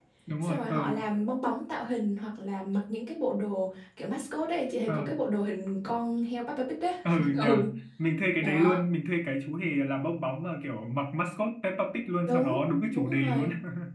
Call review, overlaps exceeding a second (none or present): present